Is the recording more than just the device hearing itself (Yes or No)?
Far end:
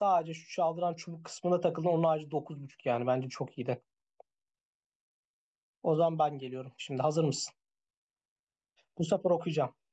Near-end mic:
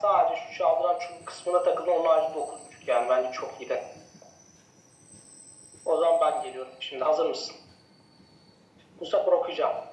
No